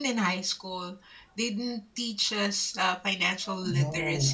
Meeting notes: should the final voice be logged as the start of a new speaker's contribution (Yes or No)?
Yes